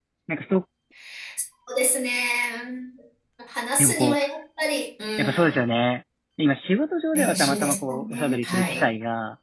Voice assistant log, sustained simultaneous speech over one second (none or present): present